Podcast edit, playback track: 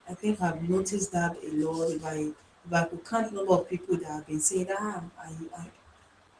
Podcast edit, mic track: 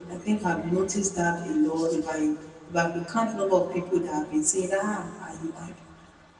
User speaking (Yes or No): No